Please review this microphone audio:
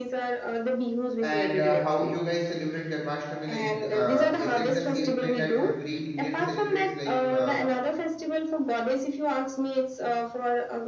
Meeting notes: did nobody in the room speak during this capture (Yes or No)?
No